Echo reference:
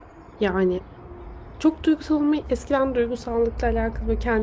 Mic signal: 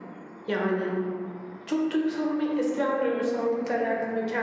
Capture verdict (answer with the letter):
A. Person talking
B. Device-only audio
A